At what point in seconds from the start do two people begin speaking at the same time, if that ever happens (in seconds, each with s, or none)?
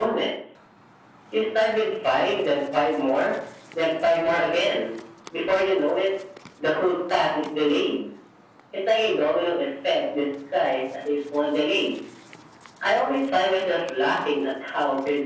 none